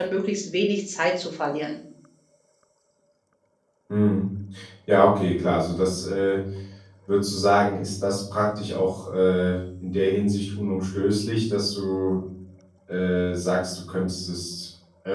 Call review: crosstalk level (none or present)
none